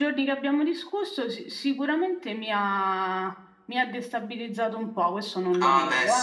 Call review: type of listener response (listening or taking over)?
taking over